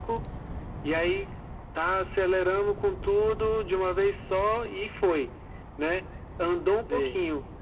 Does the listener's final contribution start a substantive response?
No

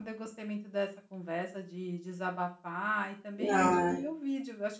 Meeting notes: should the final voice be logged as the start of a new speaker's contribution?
No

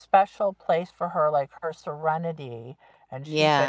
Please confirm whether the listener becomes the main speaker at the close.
Yes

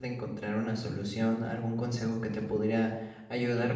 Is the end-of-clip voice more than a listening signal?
No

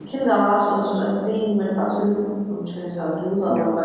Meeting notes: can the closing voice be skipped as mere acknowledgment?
Yes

